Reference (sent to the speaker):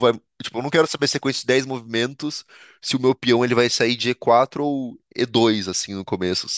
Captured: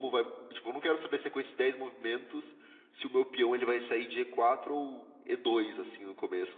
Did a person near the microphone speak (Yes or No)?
No